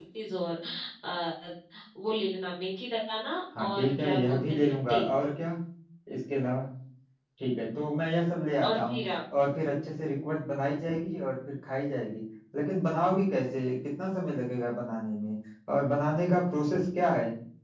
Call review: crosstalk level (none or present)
present